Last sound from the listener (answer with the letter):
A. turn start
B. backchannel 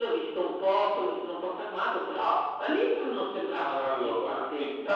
A